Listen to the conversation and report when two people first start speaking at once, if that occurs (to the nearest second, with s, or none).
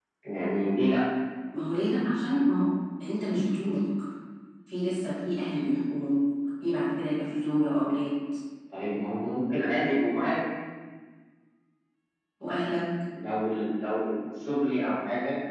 none